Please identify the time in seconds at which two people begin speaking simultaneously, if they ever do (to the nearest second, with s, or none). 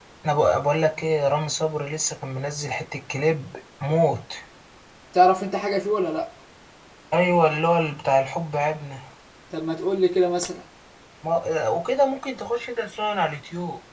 none